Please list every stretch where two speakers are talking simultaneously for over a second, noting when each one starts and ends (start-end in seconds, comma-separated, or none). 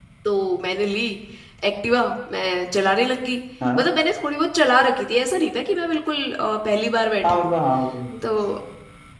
none